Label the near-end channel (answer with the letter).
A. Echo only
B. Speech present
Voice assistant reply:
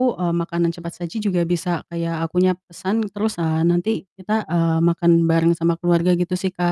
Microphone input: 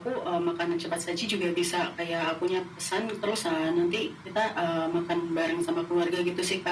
A